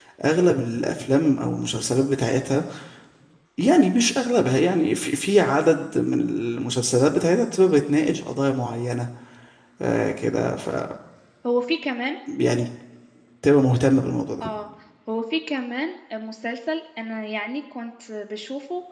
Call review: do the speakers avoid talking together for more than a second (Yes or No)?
Yes